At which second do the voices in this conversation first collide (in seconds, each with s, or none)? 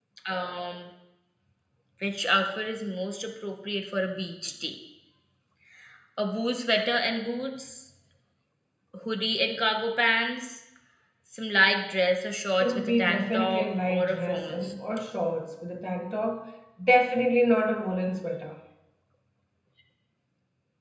12.6 s